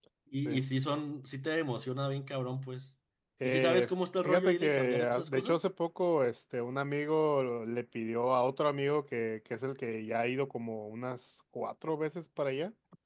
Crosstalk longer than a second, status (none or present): present